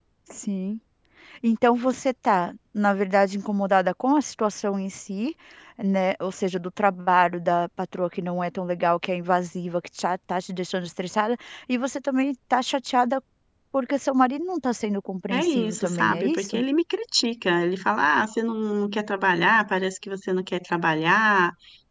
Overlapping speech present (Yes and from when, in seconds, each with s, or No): Yes, from 15.3 s